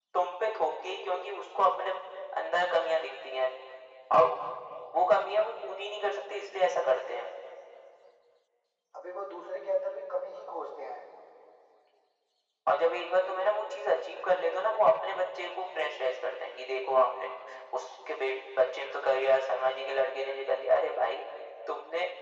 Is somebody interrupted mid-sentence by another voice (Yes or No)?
No